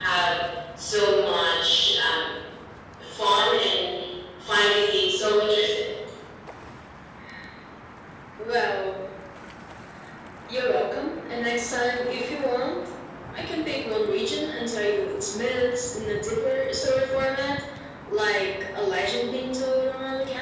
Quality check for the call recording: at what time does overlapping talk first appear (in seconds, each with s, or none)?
none